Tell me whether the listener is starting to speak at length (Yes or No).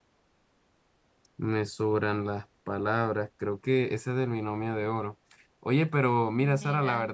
No